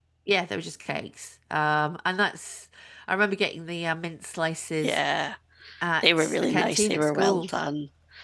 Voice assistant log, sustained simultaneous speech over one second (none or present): present